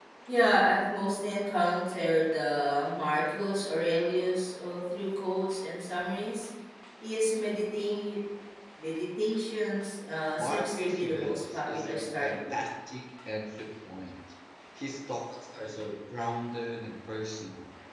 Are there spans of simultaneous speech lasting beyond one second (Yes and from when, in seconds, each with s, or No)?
Yes, from 10.4 s